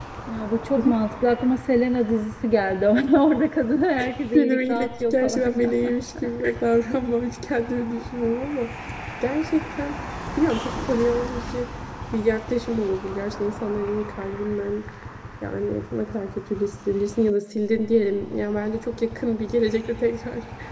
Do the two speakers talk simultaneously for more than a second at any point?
Yes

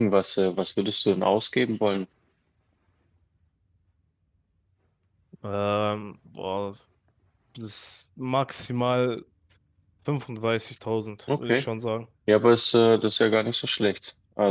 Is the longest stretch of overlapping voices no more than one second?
Yes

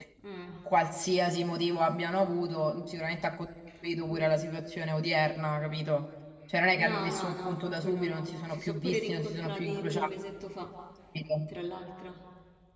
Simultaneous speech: Yes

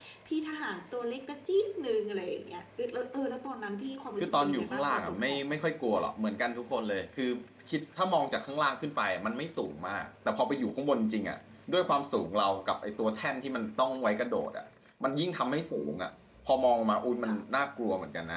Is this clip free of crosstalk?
No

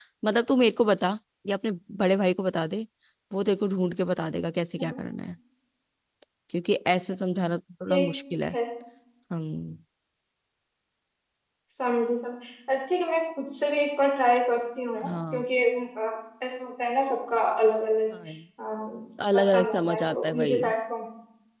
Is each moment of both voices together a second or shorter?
No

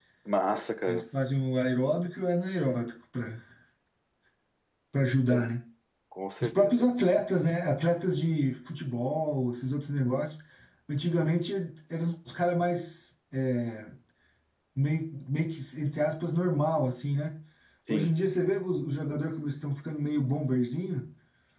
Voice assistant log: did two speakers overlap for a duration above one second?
No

